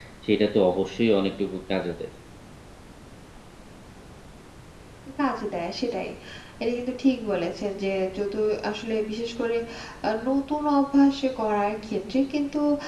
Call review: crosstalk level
none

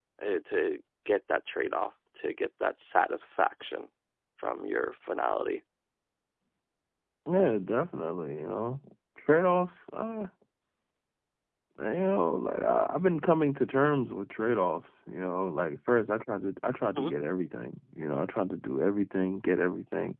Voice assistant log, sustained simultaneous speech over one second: none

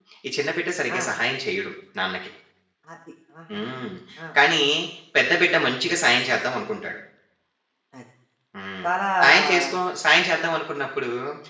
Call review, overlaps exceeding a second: none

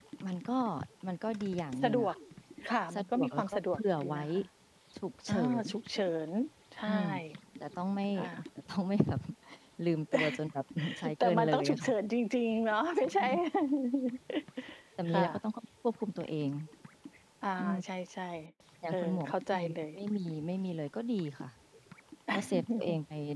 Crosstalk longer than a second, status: present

